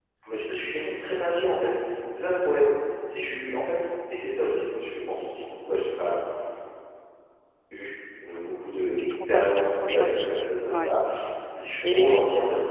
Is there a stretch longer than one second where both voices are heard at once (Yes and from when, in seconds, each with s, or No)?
Yes, from 9.0 s